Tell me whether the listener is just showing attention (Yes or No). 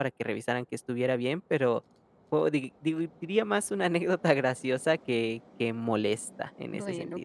No